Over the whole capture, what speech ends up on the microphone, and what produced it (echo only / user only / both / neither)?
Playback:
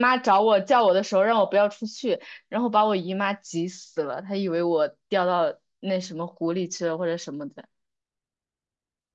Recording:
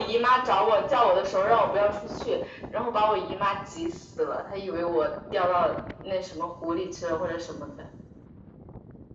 echo only